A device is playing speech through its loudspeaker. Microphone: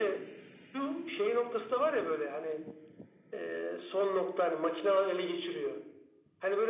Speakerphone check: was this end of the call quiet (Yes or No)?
Yes